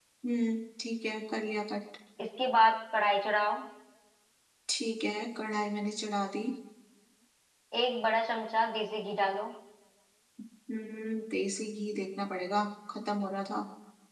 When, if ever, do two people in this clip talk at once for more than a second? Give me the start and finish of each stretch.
none

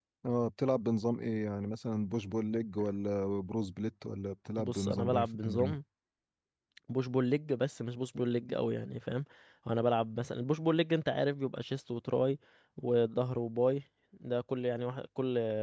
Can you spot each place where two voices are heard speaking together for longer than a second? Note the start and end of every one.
4.6-5.8

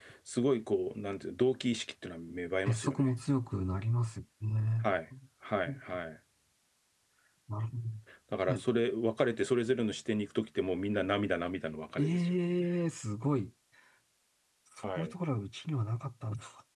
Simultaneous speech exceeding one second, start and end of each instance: none

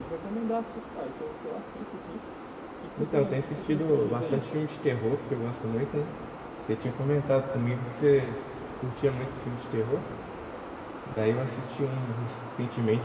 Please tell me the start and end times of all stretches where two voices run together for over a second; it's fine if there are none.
3.0-4.4

